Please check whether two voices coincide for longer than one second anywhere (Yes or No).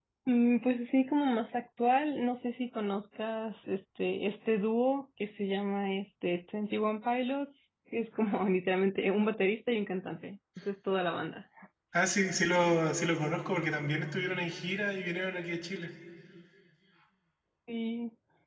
No